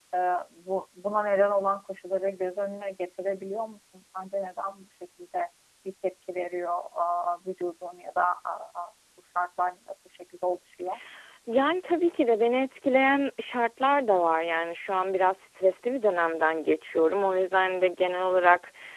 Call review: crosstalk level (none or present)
none